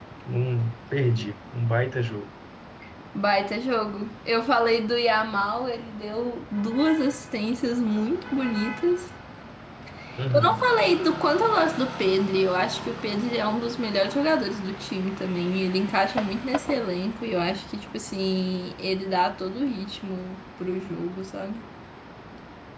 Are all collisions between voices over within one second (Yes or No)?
Yes